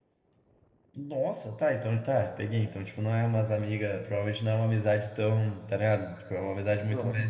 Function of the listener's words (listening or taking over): listening